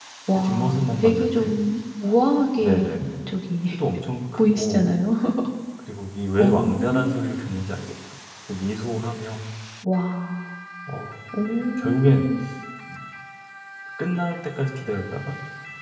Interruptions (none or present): present